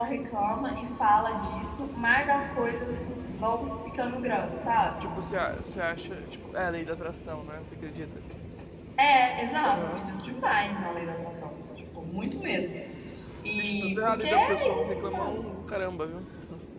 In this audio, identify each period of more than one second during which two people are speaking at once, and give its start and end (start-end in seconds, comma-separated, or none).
13.6-15.4